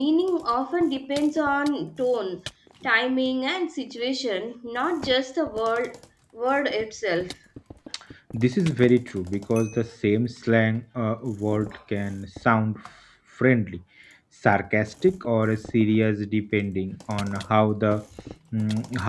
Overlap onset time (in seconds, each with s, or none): none